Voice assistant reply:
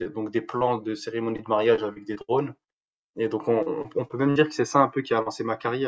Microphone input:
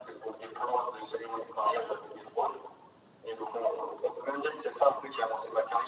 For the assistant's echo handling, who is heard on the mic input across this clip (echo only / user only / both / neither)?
echo only